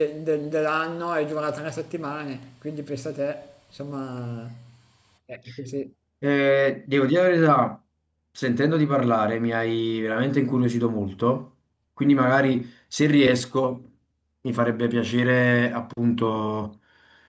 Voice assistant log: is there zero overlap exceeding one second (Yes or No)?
Yes